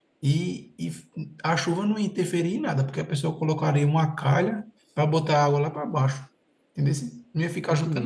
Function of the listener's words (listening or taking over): taking over